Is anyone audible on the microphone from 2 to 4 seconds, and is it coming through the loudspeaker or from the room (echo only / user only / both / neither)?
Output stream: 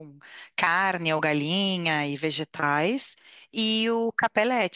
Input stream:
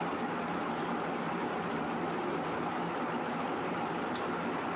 neither